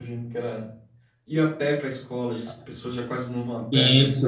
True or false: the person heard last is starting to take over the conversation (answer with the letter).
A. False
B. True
B